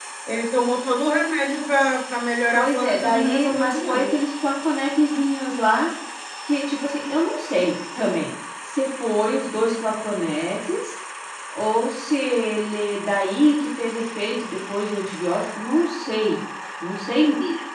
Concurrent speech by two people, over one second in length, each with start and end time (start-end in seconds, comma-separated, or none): 2.5-4.1